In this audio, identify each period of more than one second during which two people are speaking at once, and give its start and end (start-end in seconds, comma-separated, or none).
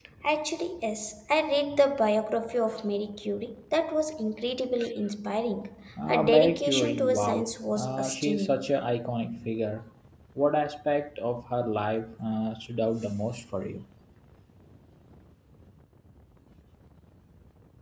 6.1-8.6